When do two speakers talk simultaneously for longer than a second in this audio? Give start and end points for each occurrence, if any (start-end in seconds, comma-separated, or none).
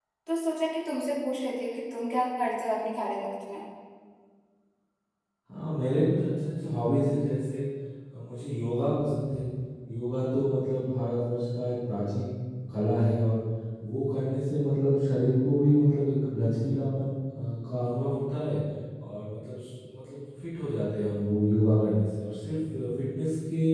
none